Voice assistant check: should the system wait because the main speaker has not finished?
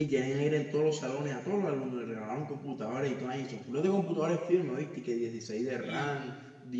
Yes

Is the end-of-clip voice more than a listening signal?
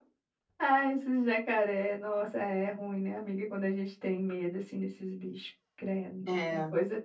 No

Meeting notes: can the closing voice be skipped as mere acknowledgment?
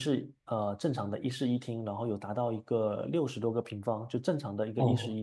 No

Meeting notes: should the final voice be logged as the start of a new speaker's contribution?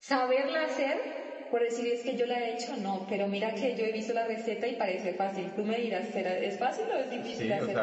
Yes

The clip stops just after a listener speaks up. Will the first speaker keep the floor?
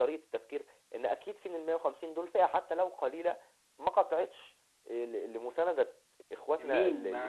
No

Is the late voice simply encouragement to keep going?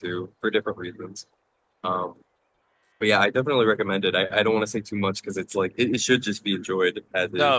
No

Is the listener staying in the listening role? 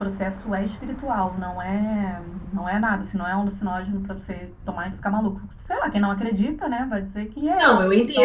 No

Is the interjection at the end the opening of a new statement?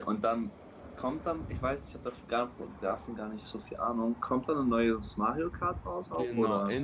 Yes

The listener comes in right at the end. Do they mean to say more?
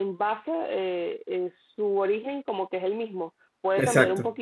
No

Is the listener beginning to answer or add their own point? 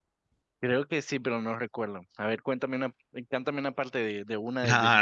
Yes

